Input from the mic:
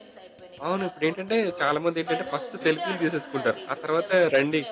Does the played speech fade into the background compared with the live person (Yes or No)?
Yes